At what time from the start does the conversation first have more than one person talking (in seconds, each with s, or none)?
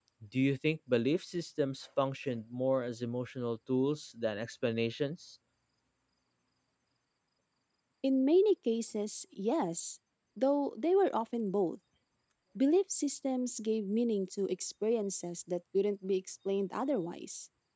none